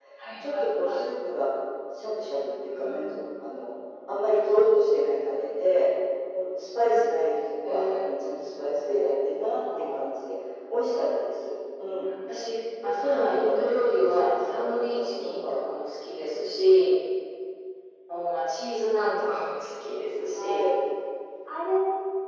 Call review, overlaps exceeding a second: present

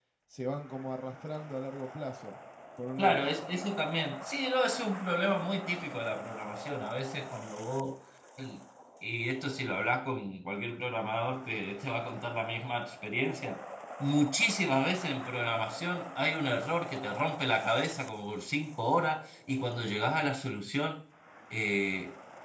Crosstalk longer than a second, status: none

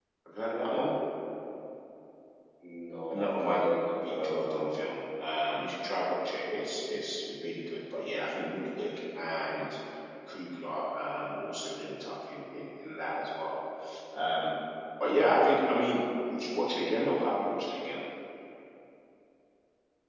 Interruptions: present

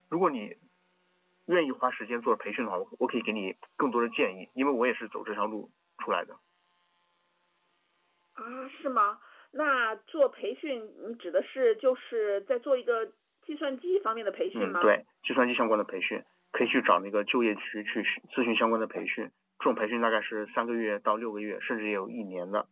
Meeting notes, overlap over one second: none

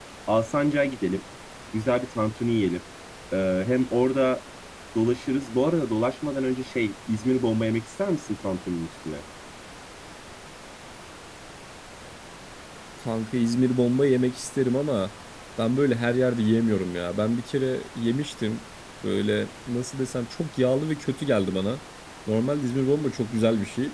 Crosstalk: none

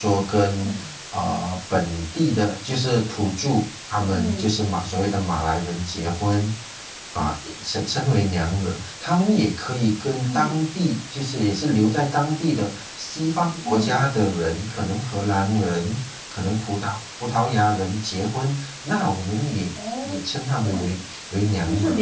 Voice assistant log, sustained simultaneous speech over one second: none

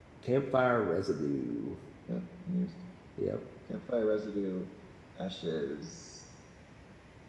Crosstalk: none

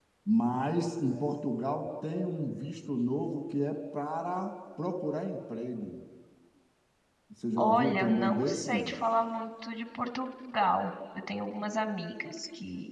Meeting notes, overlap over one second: present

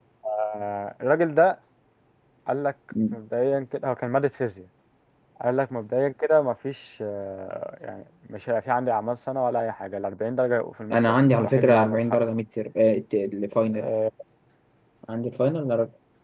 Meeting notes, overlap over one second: present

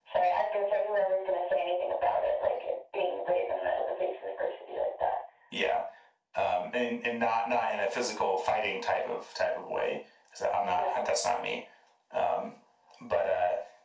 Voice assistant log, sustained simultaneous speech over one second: none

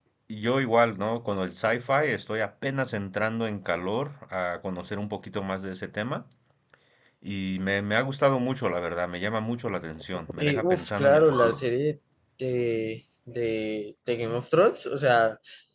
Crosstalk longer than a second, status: present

